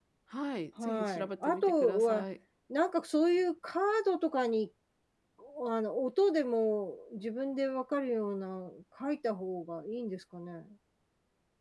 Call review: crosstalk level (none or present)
present